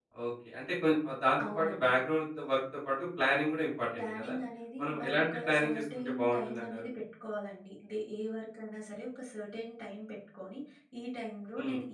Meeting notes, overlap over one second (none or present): present